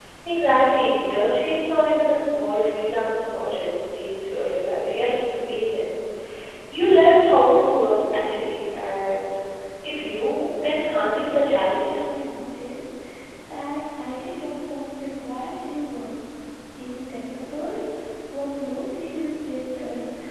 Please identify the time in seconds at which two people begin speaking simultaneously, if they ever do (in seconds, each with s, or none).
10.6 s